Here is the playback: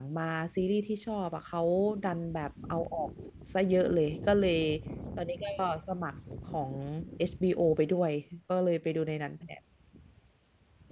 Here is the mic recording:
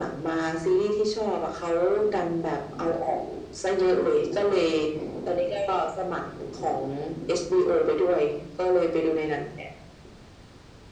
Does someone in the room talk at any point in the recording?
No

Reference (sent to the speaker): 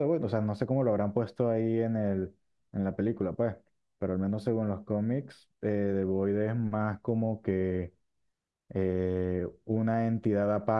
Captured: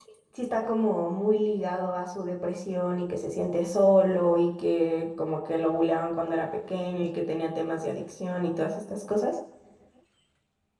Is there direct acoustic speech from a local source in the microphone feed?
Yes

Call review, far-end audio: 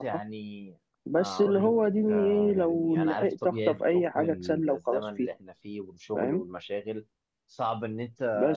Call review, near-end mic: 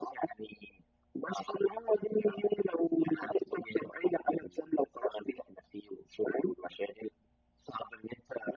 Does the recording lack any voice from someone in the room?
Yes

